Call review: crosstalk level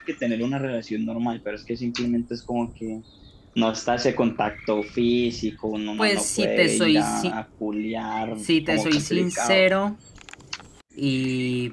present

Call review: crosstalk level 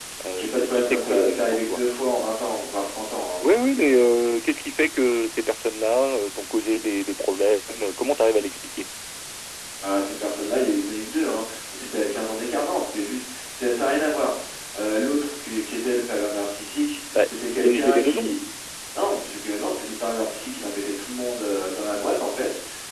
present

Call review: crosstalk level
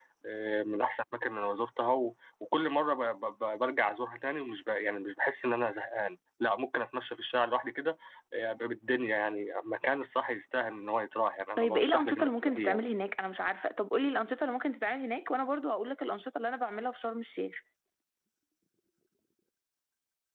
present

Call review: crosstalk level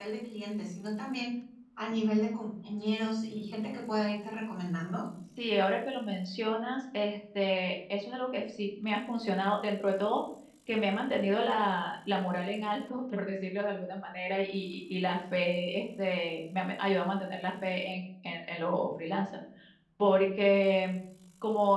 none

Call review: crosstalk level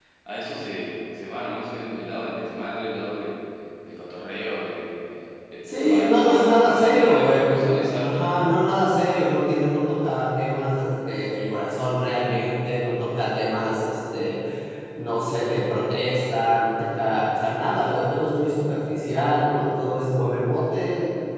present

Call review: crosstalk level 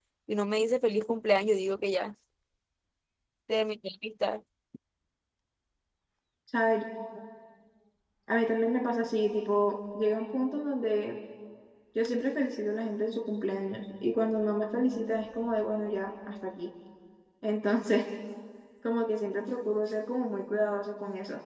none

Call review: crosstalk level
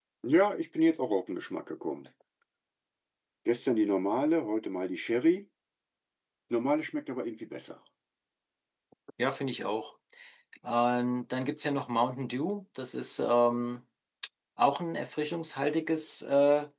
none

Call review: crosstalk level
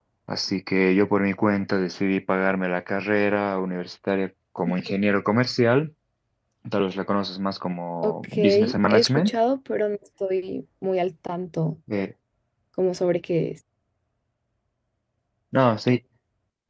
present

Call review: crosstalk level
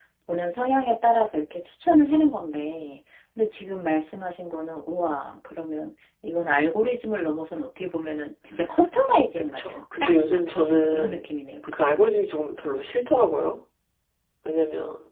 present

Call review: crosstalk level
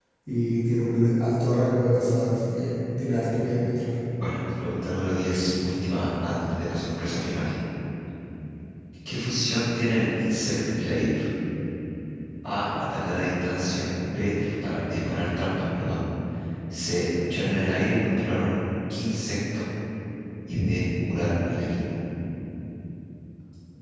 none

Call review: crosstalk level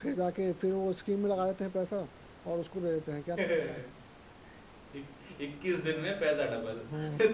none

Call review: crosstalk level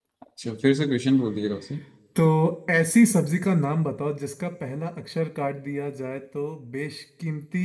none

